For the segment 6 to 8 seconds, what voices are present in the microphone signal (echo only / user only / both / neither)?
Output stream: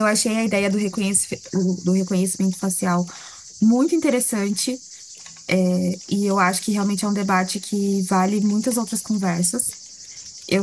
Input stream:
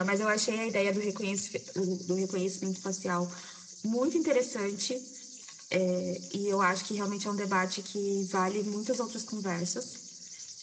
echo only